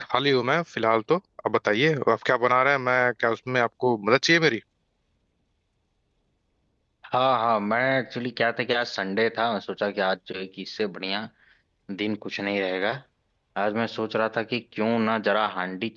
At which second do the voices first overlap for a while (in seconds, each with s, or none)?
none